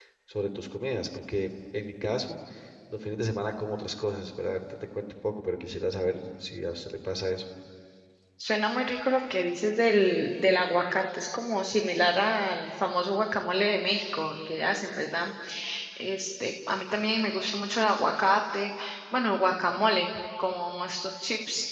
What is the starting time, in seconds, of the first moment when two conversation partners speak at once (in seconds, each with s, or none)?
none